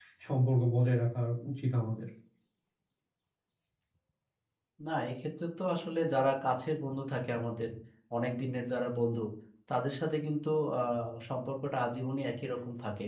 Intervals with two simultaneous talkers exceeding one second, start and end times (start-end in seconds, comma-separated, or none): none